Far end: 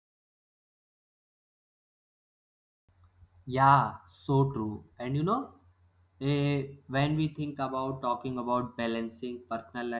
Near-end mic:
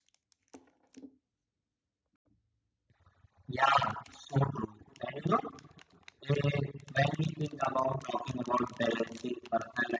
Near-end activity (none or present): none